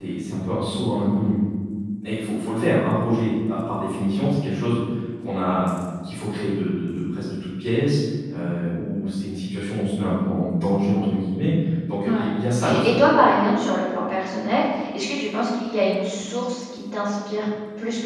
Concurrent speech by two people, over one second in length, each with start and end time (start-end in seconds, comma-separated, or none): none